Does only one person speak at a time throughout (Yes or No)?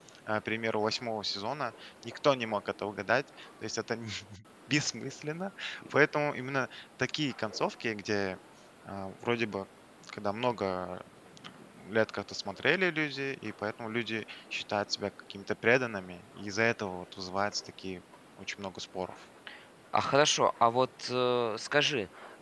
Yes